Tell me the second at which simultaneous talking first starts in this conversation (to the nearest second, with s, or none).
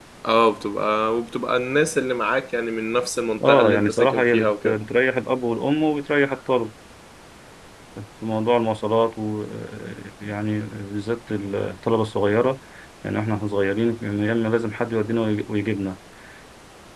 3 s